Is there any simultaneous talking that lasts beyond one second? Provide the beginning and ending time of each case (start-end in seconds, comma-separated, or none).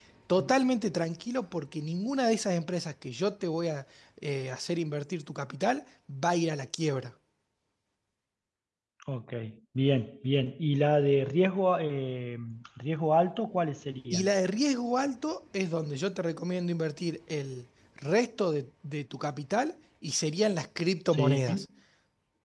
none